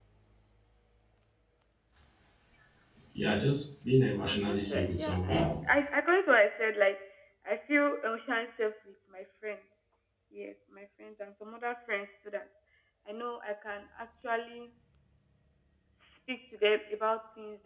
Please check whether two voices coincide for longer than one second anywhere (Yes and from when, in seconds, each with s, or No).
Yes, from 4.2 s